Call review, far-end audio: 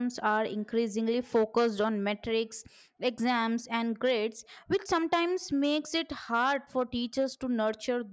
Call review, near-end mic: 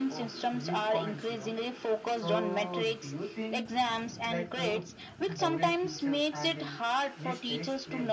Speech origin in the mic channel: both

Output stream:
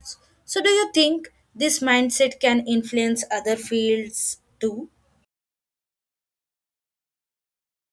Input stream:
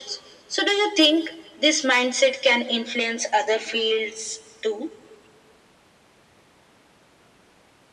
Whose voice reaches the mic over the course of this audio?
echo only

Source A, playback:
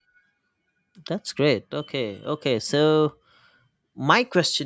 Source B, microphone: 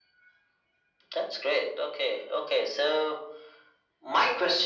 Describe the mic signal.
echo only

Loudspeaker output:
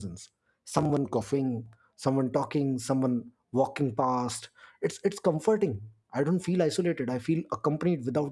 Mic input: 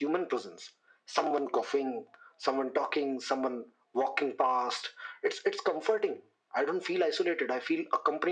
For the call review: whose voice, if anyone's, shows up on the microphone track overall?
echo only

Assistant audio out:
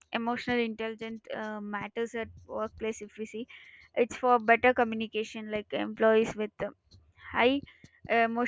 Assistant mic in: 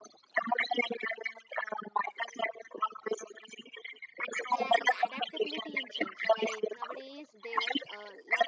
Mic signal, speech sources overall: both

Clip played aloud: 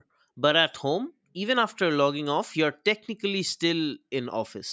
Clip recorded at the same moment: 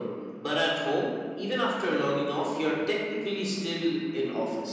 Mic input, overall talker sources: echo only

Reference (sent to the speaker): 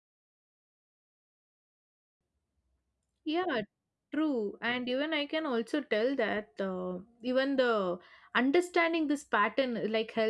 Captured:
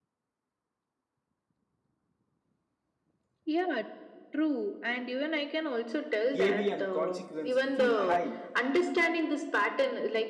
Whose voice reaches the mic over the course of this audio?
both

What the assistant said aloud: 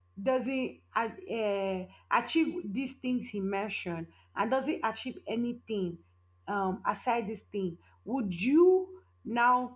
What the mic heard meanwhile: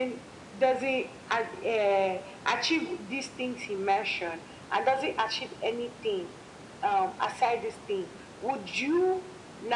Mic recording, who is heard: echo only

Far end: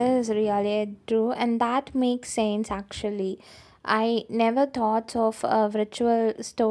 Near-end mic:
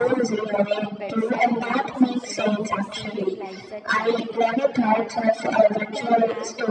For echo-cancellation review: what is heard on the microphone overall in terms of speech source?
both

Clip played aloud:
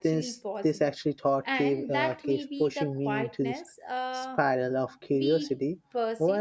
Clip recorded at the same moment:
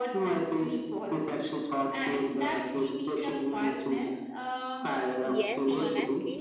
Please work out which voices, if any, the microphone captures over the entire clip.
both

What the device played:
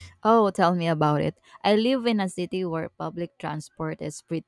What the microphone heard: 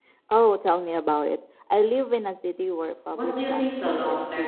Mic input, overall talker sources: both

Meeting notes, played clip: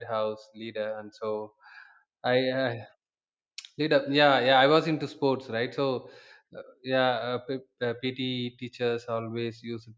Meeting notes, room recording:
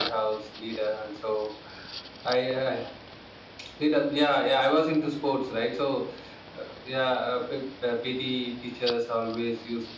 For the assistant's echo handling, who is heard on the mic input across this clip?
echo only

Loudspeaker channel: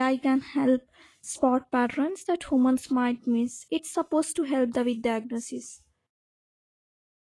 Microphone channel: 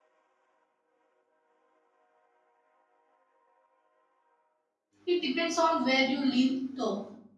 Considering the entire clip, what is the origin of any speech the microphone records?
user only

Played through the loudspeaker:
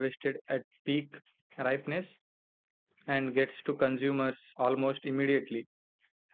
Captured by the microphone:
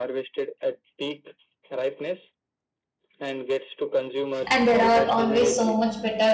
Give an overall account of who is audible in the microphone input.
both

